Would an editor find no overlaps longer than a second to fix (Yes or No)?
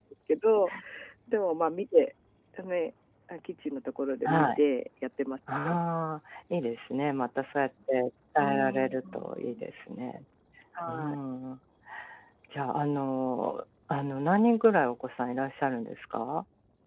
No